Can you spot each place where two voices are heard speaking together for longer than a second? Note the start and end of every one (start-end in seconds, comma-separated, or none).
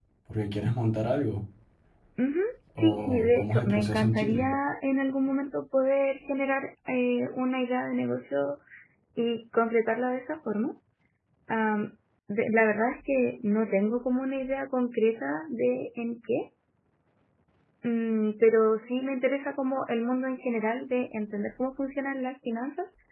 2.8-4.5